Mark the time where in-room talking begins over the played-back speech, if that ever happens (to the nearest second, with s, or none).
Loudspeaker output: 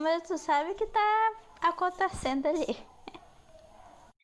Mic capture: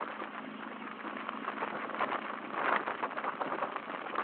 none